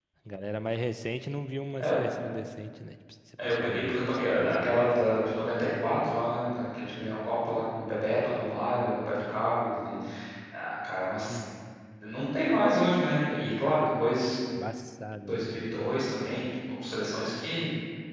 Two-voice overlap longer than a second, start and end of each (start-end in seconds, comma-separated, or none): 3.4-5.0